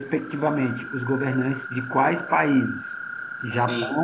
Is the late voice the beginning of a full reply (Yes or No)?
No